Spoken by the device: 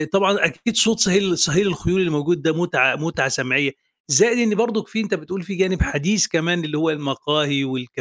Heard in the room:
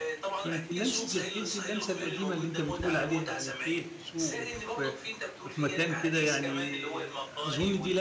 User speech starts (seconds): 0.4 s

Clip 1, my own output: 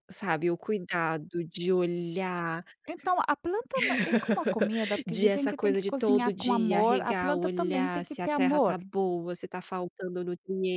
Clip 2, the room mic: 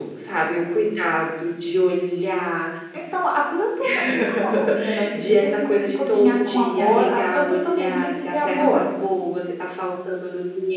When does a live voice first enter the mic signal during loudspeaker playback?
none

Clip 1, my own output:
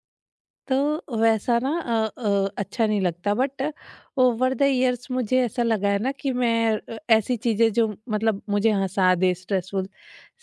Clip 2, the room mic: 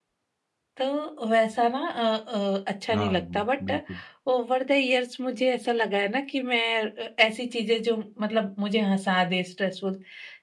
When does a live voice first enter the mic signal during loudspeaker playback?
2.9 s

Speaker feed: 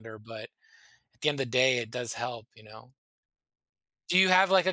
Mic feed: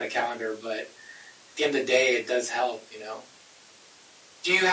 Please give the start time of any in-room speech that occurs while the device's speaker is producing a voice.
none

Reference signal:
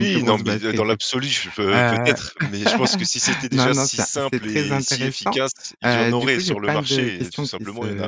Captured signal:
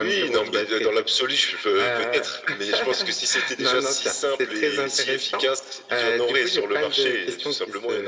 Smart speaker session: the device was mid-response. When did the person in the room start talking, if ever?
none

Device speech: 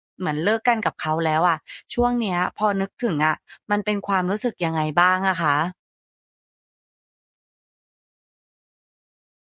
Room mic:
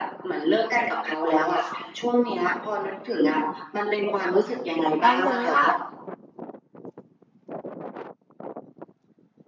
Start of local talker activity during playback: 5.0 s

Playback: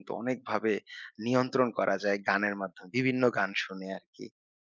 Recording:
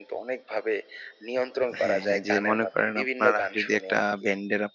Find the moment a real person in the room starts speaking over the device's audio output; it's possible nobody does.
1.8 s

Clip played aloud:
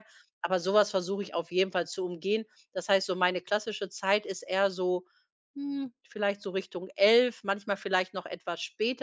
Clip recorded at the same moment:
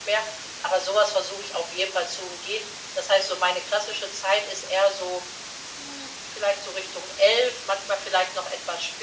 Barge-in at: none

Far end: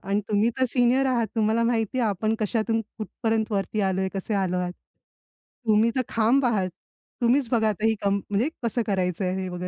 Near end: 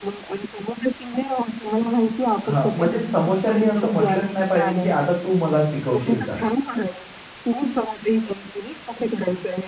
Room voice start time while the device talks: 2.5 s

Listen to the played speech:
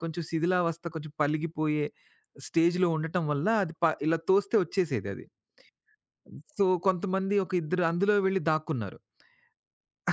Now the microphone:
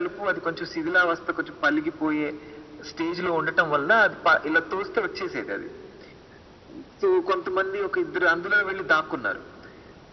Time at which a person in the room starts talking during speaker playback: none

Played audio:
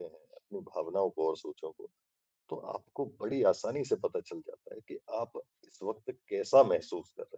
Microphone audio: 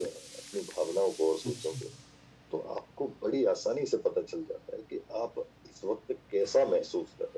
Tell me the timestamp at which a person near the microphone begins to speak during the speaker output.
1.4 s

